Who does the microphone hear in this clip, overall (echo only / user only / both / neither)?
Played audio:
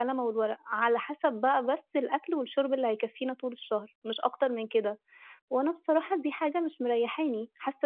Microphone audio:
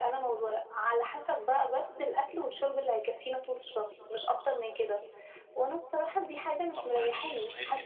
both